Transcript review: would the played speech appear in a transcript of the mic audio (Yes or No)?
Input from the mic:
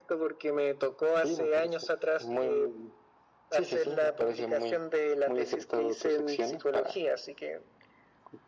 Yes